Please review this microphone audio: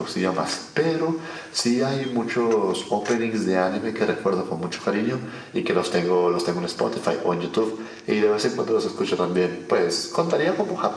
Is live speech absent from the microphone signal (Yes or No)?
Yes